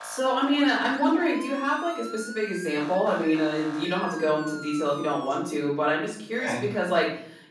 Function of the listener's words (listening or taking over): listening